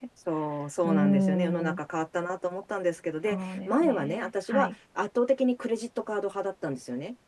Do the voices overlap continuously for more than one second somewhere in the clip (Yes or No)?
Yes